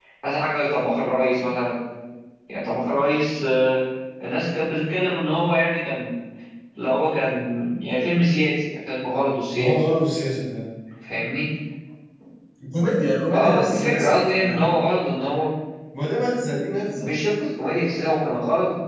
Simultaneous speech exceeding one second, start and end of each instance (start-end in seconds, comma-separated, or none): 13.3-14.6